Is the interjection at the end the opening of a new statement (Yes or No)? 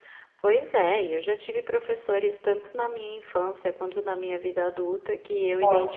No